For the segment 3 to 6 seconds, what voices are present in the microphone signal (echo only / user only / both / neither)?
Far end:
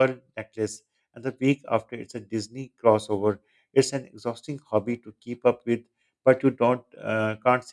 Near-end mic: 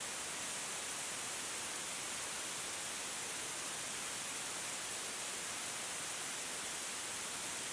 neither